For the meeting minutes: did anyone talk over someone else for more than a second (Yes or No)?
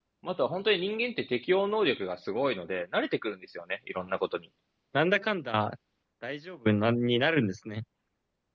No